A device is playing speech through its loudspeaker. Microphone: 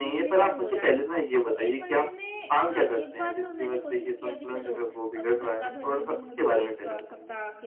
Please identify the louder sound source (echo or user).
echo